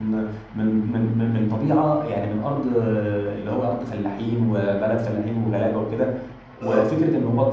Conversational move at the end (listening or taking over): listening